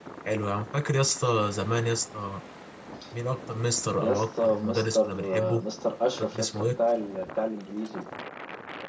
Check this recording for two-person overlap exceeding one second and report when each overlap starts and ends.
4.0-5.6

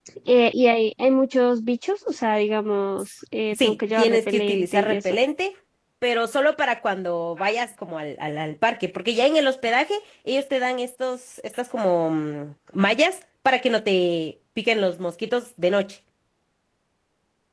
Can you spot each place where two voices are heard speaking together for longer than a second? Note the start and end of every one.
3.5-5.0

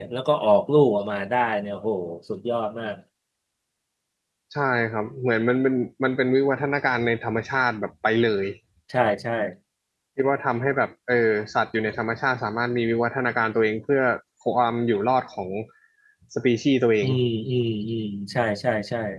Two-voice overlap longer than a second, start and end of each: none

